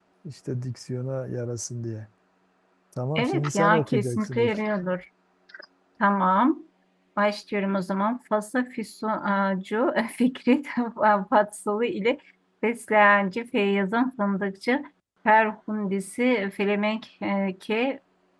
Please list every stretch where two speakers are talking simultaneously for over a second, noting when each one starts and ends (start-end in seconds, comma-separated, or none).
3.2-4.6